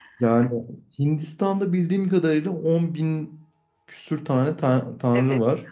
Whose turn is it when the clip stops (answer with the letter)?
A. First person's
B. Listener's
B